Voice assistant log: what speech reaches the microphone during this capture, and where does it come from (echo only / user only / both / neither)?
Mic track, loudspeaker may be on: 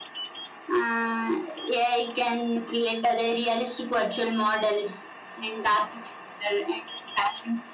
echo only